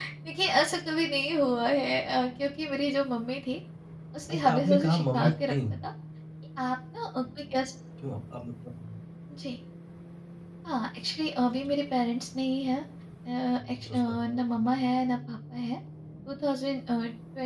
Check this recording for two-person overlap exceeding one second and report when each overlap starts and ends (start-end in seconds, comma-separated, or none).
4.3-5.5